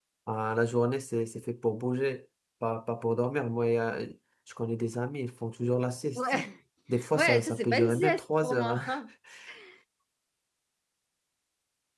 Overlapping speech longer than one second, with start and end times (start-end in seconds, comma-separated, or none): 7.2-8.8